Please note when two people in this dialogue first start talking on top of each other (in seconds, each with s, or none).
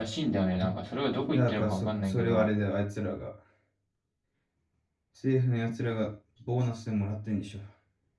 1.3 s